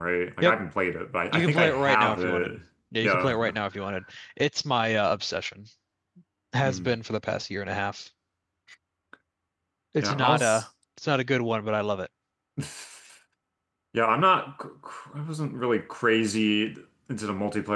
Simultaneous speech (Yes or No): Yes